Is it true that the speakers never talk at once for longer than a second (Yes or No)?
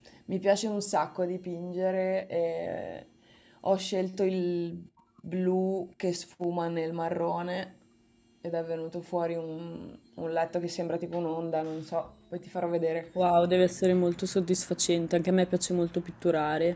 Yes